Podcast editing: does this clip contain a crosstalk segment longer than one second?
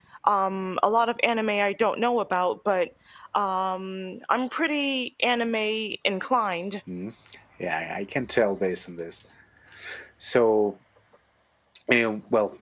No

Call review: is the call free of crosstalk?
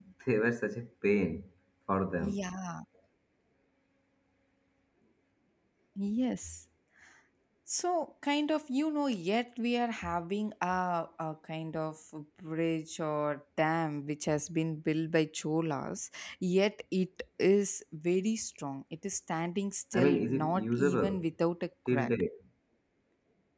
No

